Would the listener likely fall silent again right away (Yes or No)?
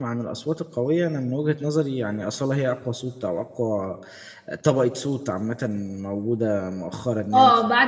No